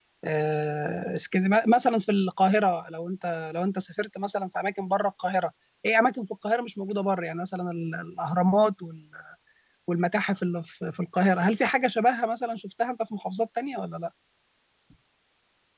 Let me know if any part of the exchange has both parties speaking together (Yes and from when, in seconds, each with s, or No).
No